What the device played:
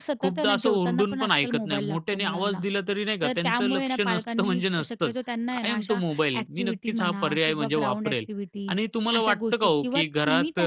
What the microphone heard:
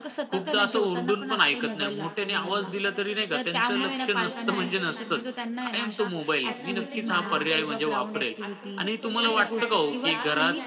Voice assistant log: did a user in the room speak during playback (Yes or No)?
Yes